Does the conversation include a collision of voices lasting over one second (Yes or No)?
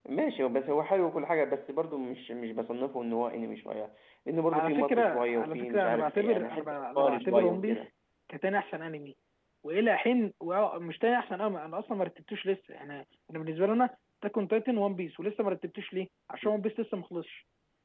Yes